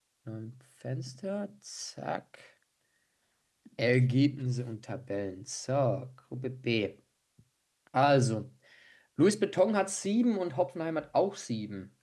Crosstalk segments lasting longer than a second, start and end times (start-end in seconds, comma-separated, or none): none